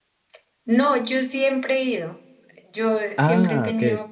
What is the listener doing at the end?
listening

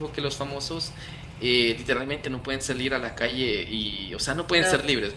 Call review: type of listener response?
listening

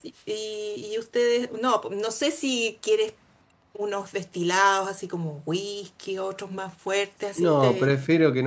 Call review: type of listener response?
taking over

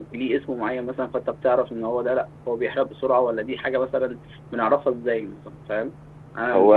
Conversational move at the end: listening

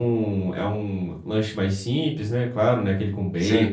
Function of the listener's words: listening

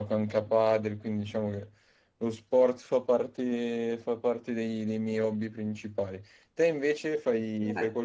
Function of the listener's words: taking over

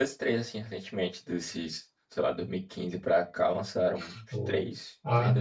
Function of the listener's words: taking over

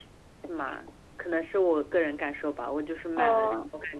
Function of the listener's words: listening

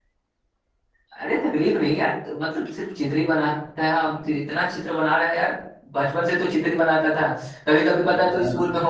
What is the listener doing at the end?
listening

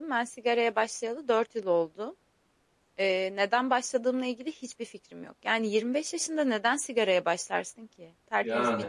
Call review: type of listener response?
listening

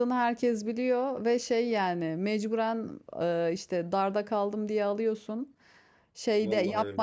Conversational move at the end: listening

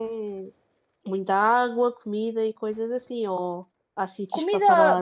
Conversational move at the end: taking over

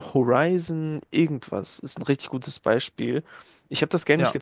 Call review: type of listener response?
listening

